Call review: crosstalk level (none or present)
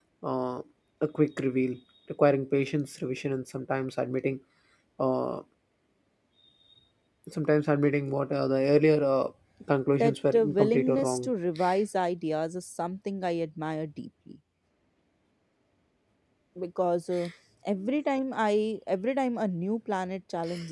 present